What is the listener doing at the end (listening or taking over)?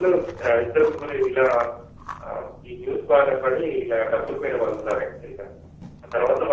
listening